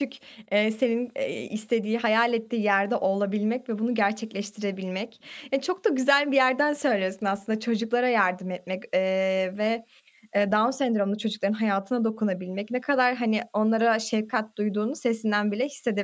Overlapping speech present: No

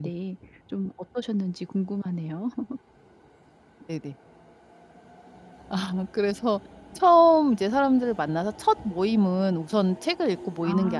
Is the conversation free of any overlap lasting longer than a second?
Yes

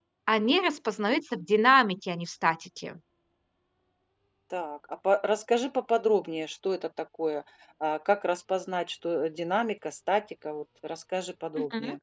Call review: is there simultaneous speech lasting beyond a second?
No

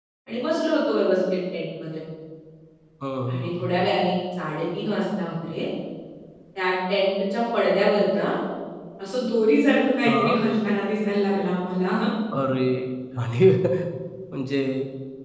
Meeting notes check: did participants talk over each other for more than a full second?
No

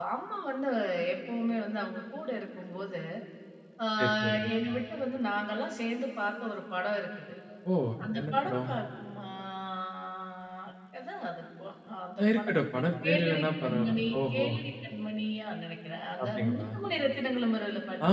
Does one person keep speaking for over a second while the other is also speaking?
Yes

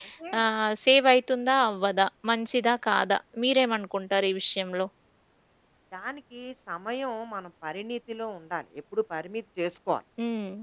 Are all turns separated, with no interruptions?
Yes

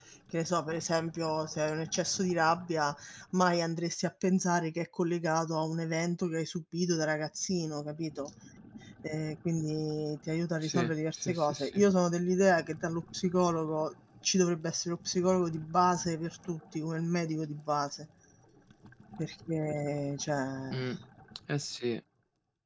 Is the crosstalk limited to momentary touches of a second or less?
No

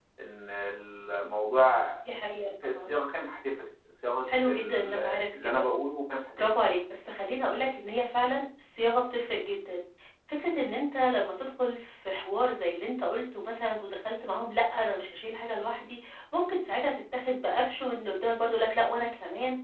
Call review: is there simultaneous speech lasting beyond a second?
Yes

